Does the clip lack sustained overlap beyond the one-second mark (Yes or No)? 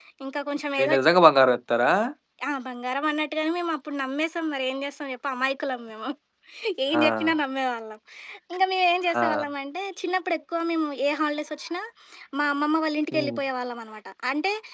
Yes